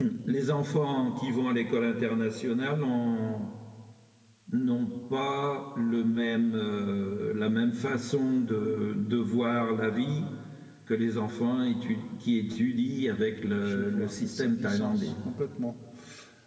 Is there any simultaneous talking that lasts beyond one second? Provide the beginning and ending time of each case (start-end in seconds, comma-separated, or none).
13.6-15.1